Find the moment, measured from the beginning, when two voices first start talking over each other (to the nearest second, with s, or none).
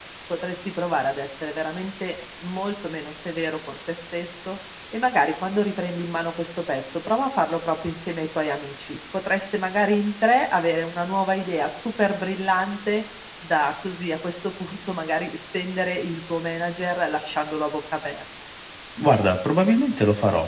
none